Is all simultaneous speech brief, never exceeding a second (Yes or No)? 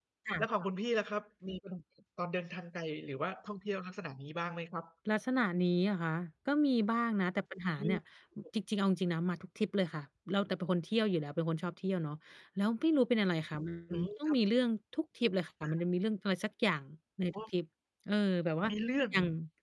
Yes